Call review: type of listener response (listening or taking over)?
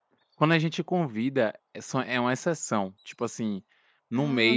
listening